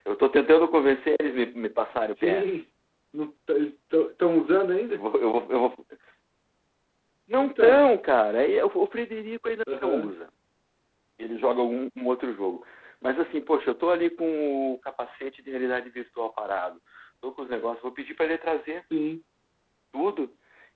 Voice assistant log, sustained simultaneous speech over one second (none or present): none